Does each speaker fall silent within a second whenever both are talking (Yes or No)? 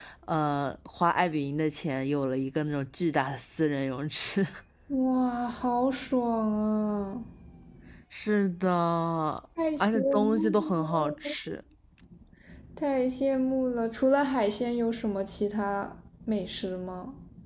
No